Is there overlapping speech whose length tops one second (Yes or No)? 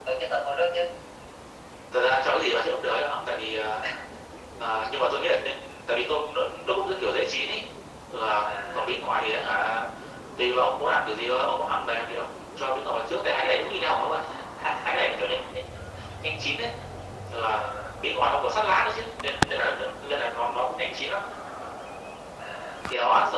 No